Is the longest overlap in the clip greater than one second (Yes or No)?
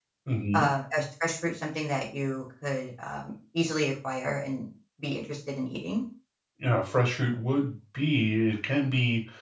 No